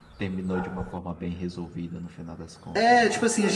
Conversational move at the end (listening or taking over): taking over